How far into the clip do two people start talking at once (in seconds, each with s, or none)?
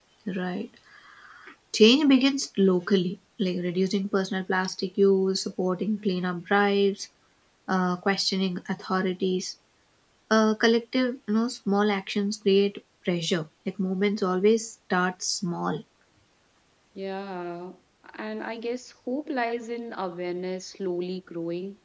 none